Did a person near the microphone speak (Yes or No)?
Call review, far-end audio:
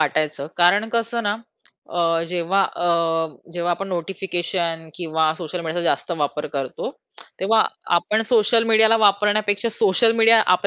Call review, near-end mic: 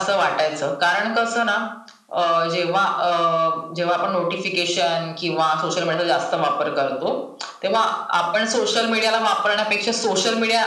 No